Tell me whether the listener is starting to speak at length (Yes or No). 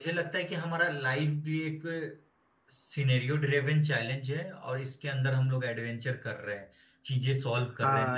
Yes